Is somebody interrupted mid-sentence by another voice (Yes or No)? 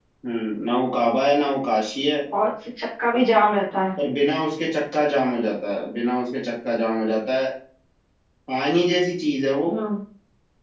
No